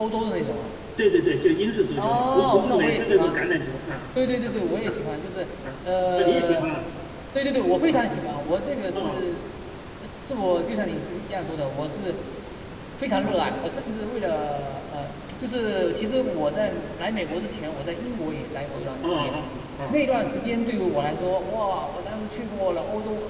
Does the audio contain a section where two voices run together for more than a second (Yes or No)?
Yes